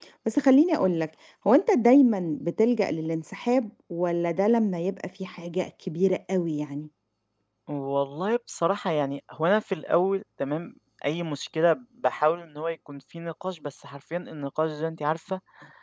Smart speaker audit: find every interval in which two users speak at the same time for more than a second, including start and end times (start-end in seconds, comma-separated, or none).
none